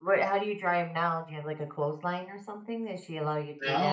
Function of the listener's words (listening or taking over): taking over